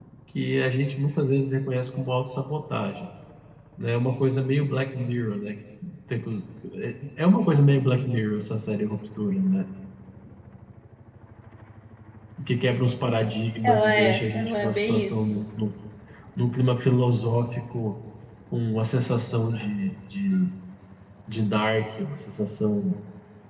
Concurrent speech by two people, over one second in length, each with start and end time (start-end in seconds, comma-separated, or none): 13.6-15.4